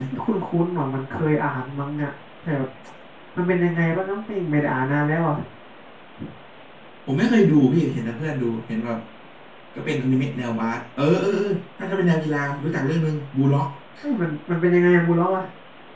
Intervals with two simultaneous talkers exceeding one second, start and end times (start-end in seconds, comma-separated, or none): none